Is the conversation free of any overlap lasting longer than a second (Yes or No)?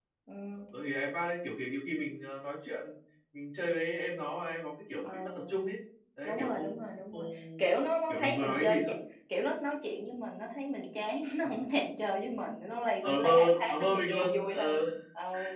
No